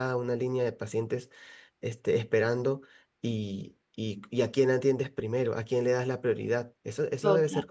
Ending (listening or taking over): taking over